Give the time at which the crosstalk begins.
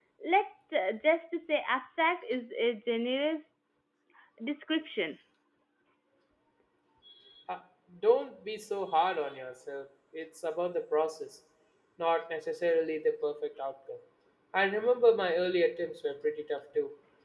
none

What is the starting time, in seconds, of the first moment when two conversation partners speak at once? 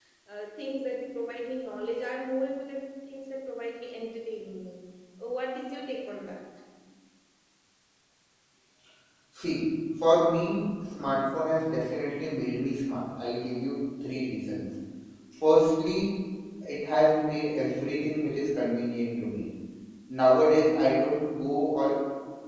none

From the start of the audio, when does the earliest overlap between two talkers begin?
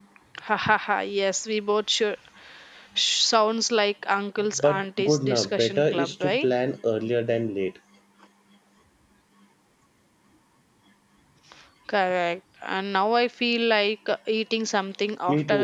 5 s

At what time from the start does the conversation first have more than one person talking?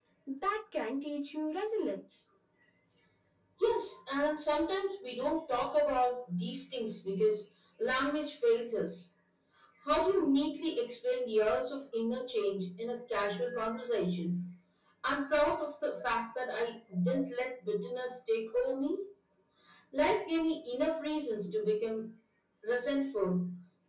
none

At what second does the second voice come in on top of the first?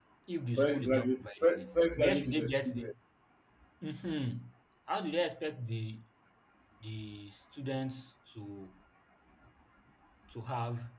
1 s

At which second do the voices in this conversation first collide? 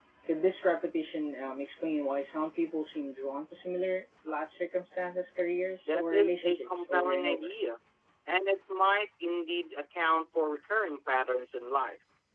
6 s

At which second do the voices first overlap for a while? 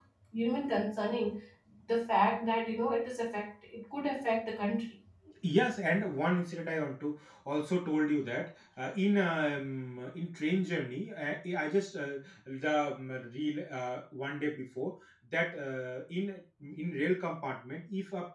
none

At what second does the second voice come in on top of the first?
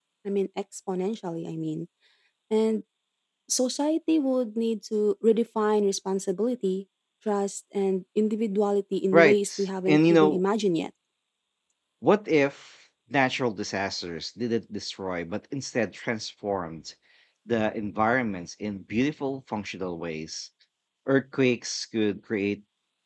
9 s

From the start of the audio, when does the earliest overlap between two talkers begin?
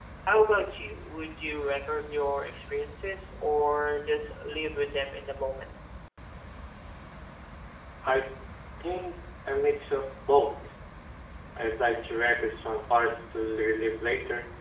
none

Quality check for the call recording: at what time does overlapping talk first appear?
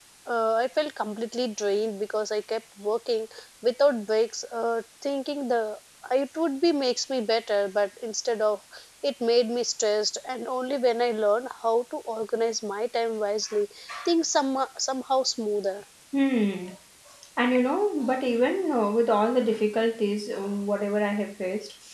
none

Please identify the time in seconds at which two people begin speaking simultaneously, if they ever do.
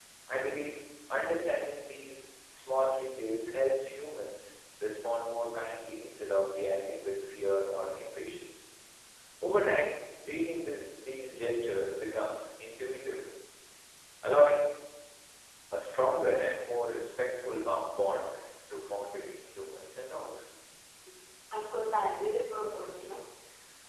none

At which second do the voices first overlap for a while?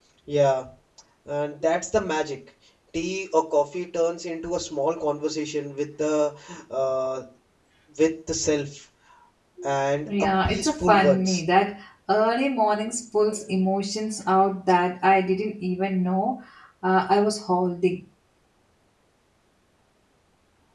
10 s

